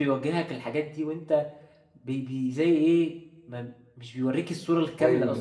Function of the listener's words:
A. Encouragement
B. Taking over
B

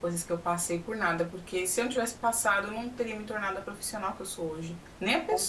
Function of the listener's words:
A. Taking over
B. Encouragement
A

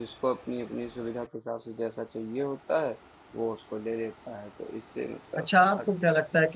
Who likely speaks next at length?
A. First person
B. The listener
B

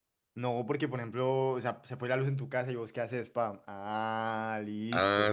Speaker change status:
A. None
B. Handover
B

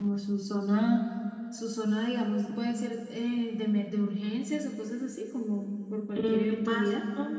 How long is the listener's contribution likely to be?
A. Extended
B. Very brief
A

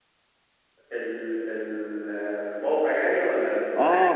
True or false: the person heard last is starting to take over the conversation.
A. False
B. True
B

